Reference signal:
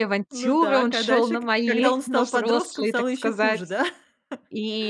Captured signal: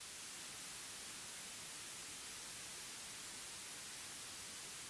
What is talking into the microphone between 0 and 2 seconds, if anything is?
neither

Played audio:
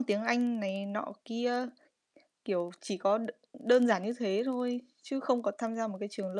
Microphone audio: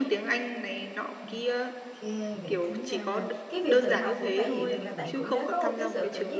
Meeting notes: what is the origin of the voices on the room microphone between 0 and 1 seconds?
echo only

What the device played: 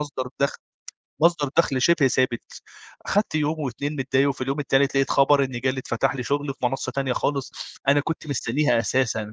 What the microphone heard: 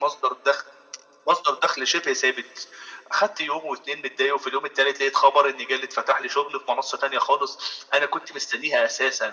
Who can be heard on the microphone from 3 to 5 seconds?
echo only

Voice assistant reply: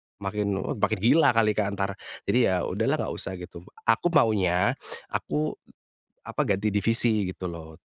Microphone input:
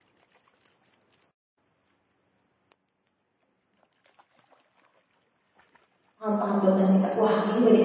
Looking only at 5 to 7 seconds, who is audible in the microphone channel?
user only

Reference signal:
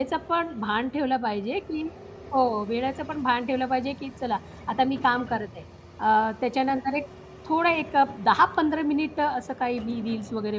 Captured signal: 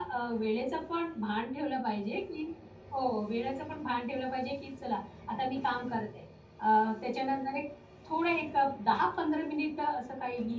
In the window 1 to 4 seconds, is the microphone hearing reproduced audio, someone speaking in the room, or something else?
echo only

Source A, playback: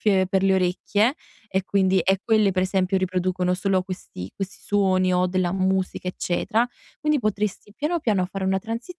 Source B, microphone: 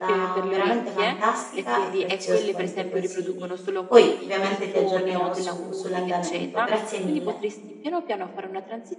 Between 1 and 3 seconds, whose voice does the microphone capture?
both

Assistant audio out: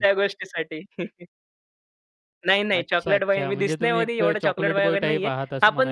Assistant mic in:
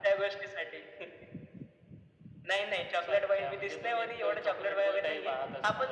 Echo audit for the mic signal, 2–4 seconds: echo only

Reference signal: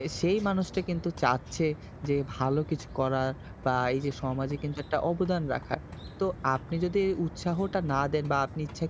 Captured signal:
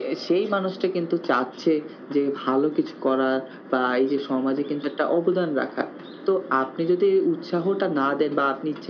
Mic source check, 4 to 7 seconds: echo only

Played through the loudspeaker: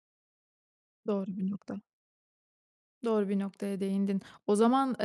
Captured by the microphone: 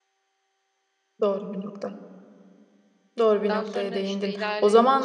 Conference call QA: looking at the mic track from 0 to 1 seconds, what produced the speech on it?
neither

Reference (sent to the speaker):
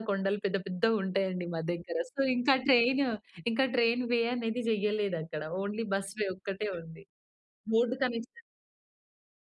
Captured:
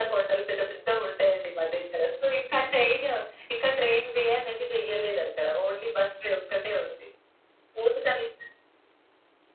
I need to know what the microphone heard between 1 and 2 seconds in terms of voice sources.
echo only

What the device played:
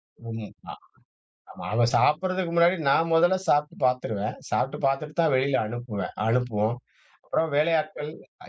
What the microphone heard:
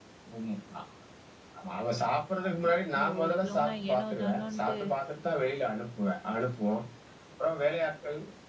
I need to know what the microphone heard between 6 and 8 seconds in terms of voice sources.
echo only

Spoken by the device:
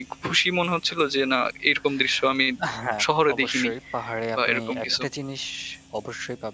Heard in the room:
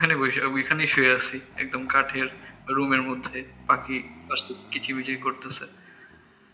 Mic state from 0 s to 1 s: user only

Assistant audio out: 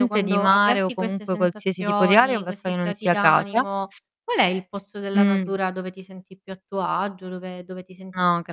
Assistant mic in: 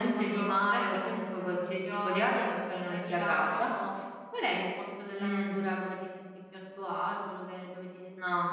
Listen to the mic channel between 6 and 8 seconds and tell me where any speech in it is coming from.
echo only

